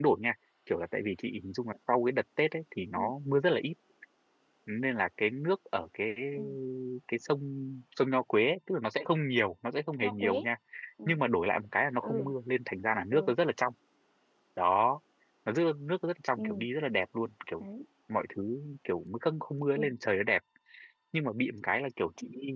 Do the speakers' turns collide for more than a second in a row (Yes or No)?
No